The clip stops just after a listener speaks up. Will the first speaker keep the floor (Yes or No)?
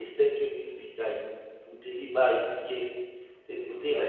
Yes